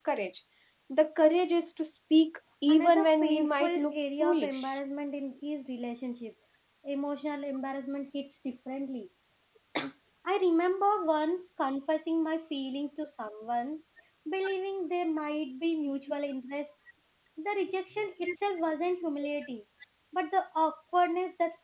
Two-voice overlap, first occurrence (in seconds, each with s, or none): 2.7 s